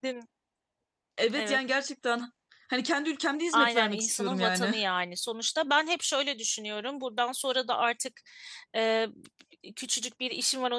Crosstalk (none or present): present